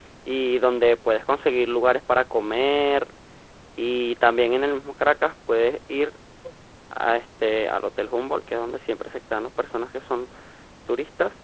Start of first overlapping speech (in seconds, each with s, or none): none